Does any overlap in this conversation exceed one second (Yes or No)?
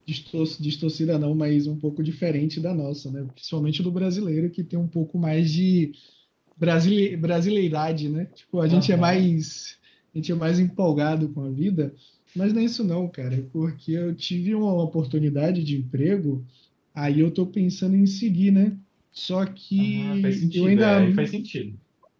Yes